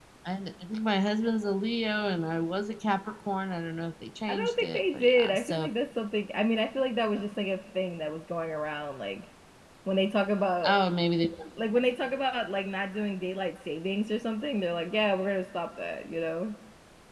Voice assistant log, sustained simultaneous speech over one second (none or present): present